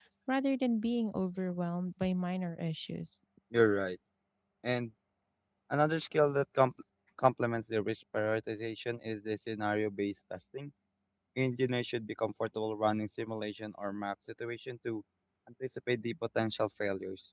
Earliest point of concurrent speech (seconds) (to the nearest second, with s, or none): none